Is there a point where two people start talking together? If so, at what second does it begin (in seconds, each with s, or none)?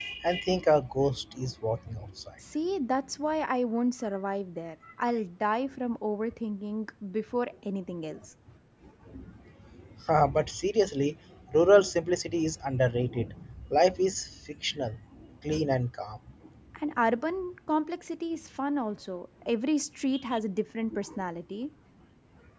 none